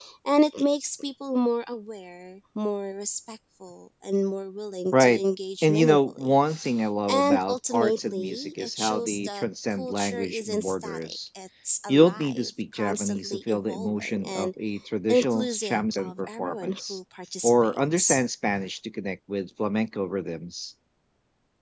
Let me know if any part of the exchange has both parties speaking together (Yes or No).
Yes